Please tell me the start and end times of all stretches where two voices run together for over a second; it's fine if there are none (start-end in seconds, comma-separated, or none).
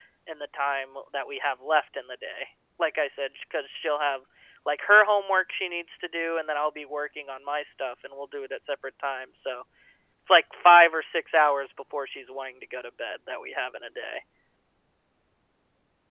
none